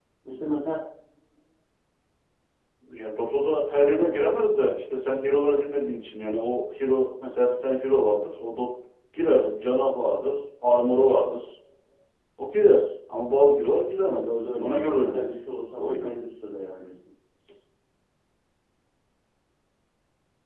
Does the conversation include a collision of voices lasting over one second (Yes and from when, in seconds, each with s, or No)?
Yes, from 14.0 s